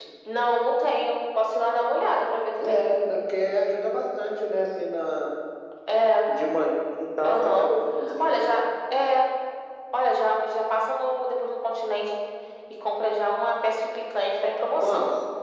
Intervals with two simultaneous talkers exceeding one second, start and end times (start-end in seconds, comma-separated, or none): none